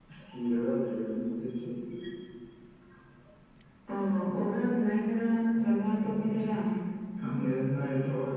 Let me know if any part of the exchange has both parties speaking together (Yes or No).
No